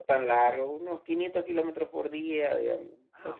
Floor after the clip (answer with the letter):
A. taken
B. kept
A